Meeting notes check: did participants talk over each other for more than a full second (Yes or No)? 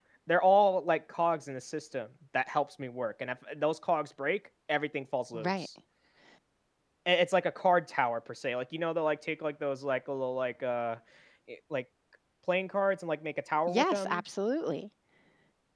No